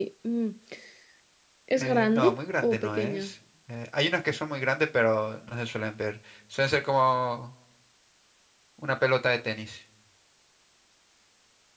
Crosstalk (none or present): present